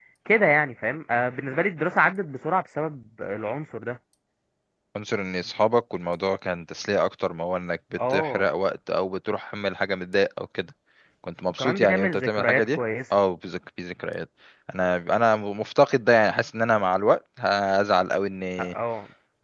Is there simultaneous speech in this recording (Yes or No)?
Yes